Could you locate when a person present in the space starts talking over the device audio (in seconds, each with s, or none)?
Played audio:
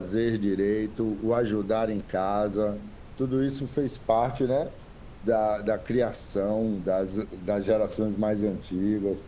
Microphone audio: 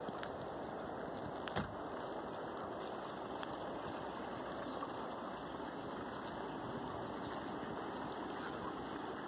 none